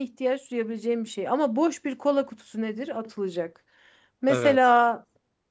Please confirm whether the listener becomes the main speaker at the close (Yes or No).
No